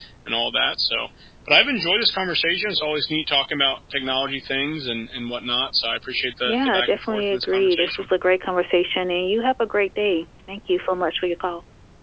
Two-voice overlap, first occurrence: 6.4 s

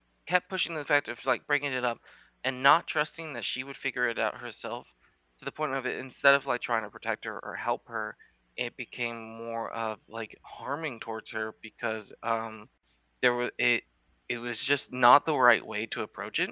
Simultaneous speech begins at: none

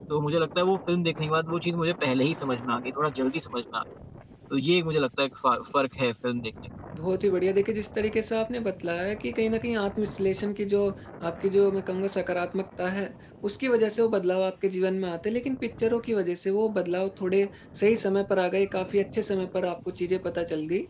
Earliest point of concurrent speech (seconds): none

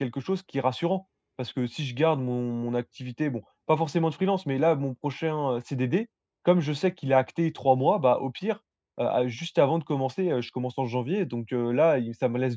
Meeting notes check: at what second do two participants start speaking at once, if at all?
none

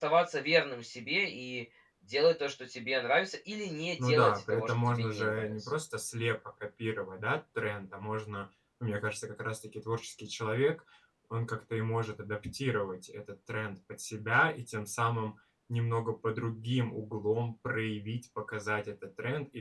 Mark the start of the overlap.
4.0 s

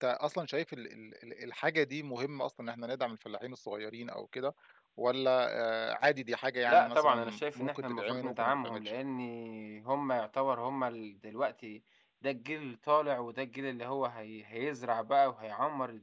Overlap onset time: 6.7 s

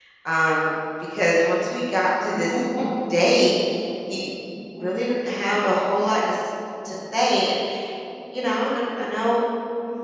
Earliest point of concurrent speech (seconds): none

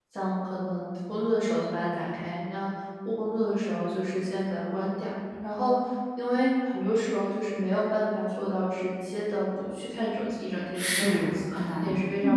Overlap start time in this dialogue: 10.7 s

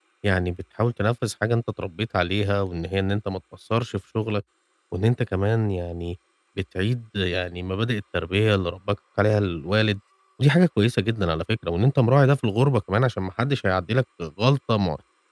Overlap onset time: none

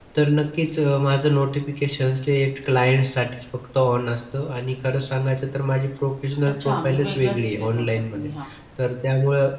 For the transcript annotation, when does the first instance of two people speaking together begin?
6.6 s

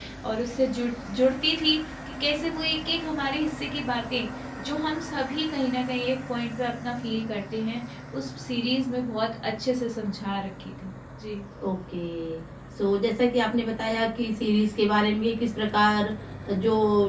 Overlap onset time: none

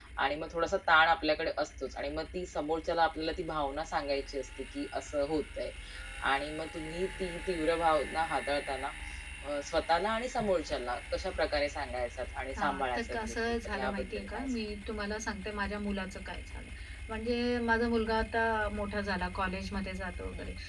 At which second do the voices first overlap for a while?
12.6 s

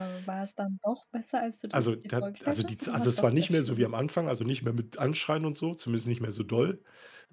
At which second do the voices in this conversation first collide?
1.7 s

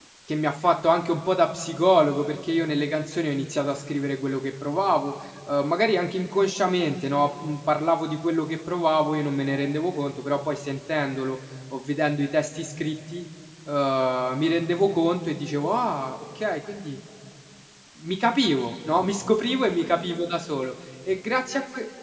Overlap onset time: none

